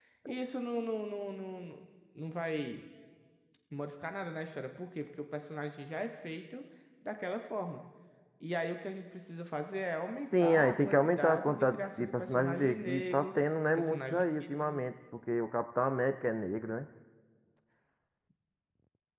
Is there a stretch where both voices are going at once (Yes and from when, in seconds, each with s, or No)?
Yes, from 10.2 s